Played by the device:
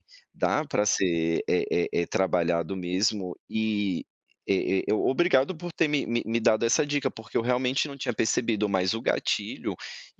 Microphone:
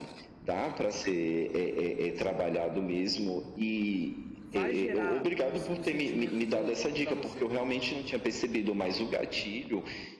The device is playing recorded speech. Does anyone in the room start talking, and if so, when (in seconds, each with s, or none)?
4.4 s